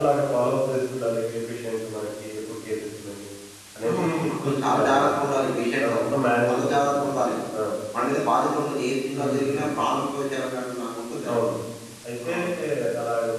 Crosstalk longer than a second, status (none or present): present